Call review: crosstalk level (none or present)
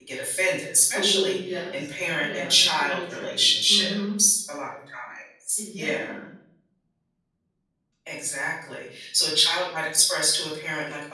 present